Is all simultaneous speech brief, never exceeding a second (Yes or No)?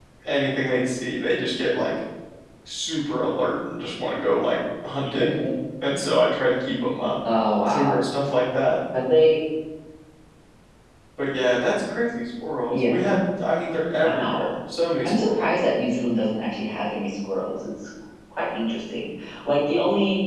Yes